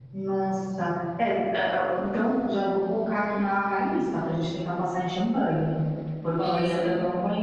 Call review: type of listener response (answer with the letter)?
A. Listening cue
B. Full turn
A